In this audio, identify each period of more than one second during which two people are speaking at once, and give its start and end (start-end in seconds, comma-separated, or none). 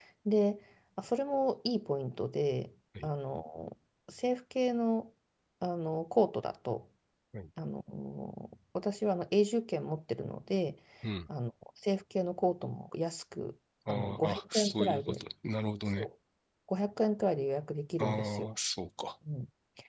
13.9-15.2